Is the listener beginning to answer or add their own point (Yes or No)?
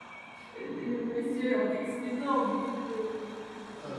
No